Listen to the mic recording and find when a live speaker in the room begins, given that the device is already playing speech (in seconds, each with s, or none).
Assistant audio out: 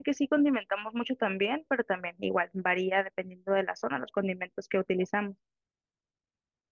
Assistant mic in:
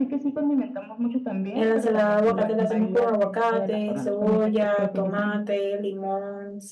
1.6 s